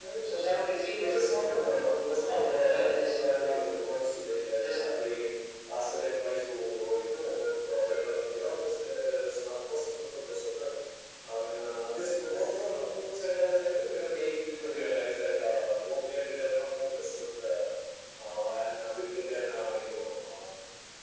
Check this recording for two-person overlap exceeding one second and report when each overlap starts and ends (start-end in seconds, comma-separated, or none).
1.0-3.8